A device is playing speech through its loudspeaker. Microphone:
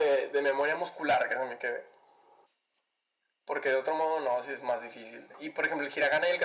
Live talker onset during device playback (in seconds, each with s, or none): none